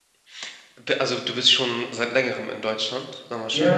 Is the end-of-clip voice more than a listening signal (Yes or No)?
Yes